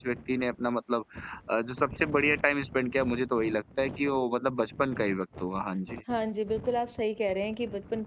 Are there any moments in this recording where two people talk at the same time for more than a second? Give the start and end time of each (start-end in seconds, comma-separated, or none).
none